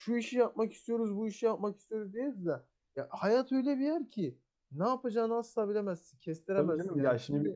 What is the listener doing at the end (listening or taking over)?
taking over